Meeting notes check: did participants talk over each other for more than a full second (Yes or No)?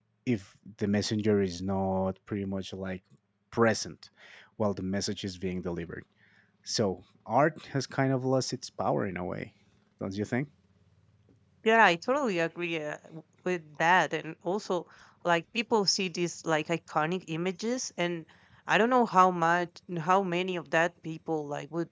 No